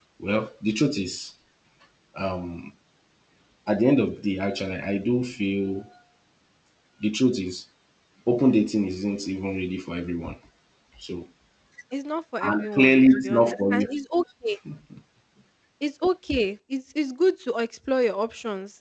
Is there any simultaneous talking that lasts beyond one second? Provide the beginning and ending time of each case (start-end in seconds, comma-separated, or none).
12.4-13.8